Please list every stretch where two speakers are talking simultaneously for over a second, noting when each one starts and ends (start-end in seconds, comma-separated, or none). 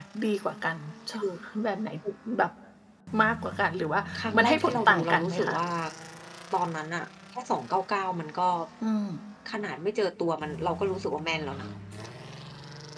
4.3-5.5